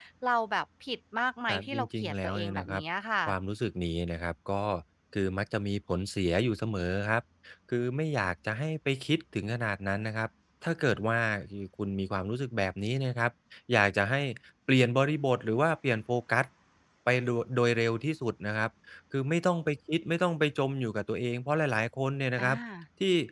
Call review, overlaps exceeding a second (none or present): present